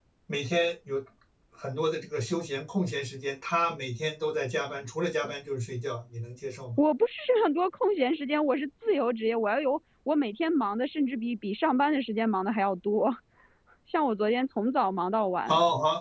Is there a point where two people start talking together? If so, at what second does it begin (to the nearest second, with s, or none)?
none